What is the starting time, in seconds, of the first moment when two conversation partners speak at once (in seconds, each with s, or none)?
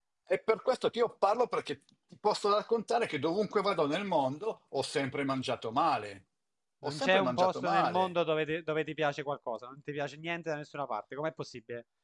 6.8 s